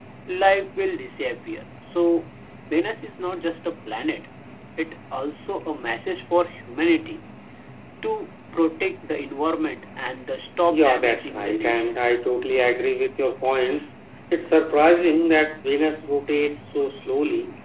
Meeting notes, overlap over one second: present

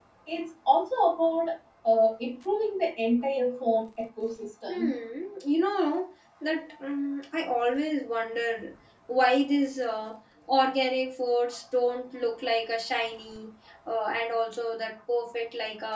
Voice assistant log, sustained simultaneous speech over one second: none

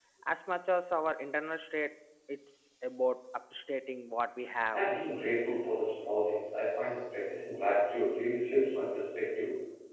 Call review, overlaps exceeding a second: none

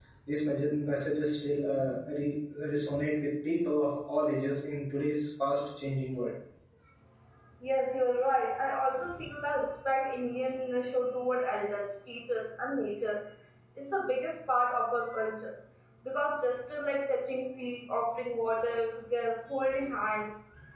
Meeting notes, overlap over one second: none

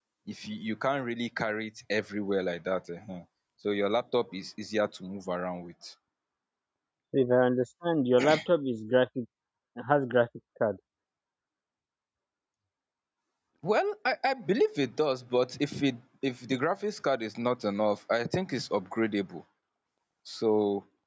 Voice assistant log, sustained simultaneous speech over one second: none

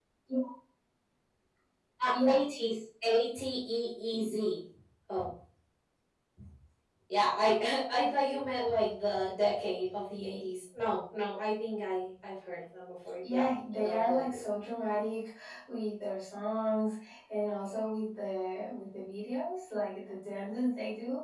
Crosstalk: present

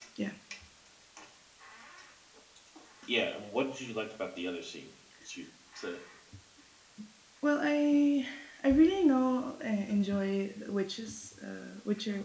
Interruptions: none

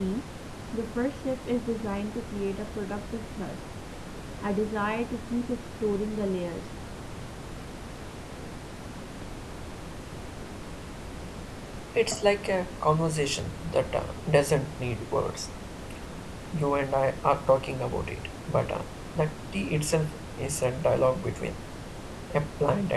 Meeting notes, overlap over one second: none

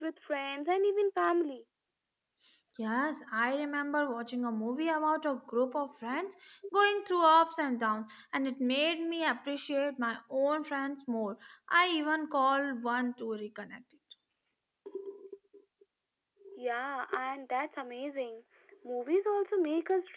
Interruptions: none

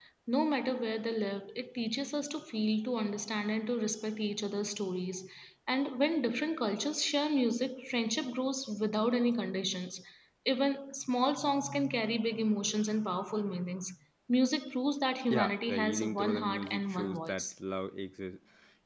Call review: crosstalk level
present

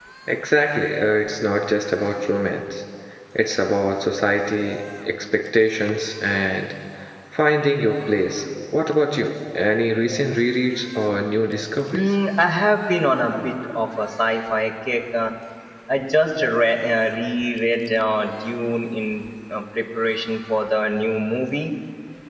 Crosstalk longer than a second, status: none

